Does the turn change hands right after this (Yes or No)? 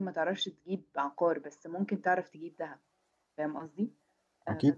No